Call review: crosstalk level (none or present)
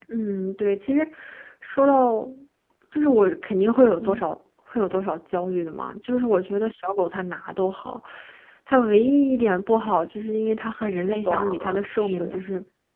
present